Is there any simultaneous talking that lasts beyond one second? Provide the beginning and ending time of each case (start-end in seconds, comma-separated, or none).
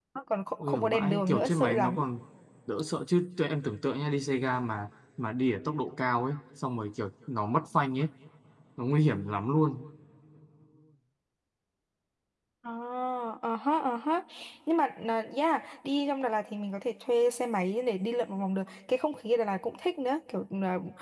0.6-2.0